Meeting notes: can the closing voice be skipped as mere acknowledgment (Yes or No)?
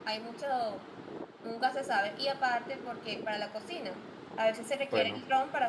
Yes